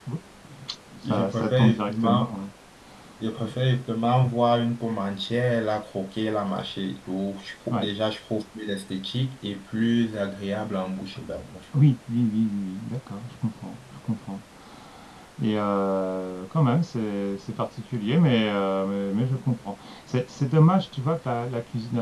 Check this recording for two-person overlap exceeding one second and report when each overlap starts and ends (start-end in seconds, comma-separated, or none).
1.1-2.3